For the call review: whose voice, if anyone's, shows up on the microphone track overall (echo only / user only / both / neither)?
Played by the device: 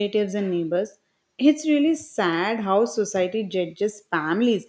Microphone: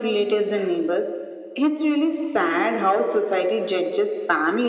echo only